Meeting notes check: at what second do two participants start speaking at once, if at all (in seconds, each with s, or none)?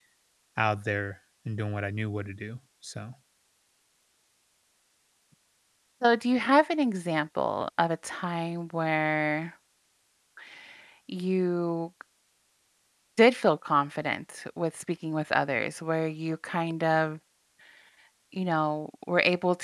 none